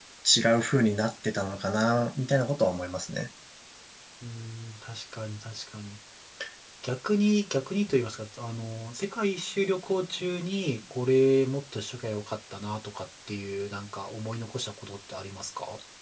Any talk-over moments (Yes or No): No